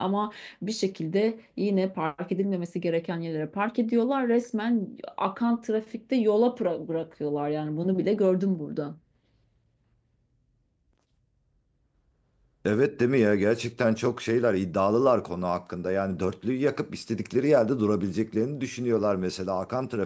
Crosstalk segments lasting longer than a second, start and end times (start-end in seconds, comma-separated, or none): none